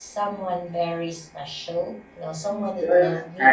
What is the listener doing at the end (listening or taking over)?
taking over